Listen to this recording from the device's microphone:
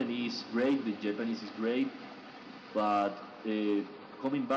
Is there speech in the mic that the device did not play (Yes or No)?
No